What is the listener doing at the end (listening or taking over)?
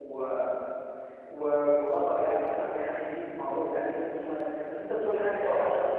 listening